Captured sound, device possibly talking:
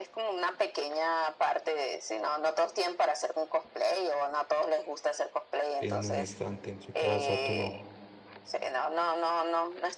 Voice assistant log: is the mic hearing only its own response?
No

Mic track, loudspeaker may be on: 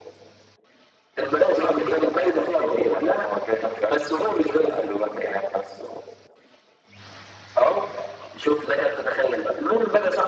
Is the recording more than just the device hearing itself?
No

